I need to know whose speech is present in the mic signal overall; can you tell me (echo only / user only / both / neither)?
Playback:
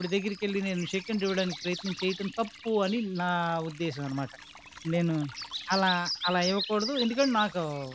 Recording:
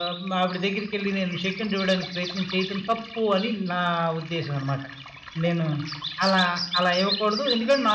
echo only